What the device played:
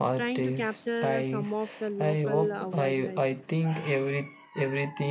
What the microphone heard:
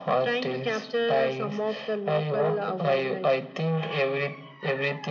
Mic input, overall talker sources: echo only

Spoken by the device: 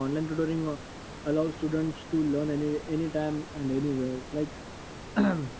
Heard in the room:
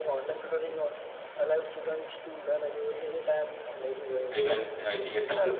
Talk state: both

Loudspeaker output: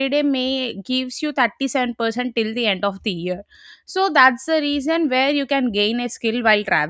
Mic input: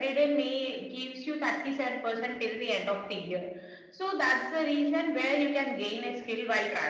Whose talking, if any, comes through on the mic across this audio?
echo only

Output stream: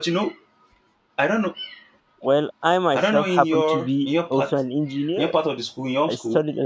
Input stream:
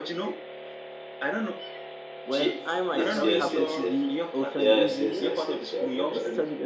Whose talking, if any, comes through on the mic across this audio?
both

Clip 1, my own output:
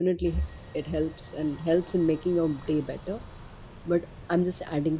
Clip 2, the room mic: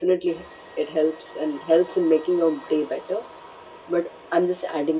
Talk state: echo only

